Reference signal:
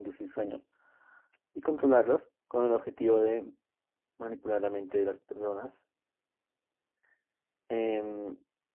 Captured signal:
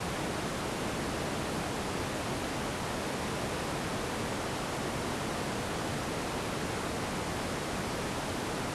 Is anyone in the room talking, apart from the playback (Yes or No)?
No